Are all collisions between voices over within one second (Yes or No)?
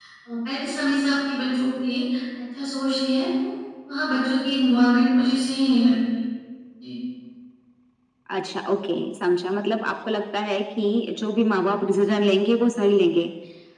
Yes